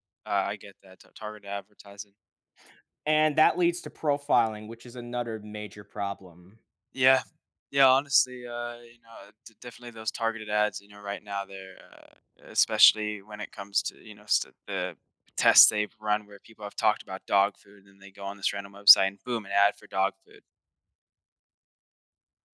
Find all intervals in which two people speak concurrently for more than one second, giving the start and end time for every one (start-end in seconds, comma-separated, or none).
none